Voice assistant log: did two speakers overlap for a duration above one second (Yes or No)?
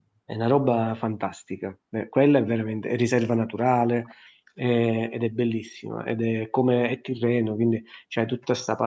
No